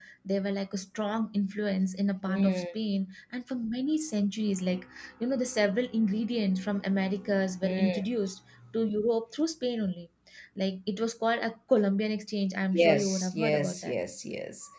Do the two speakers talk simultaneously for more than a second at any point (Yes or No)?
Yes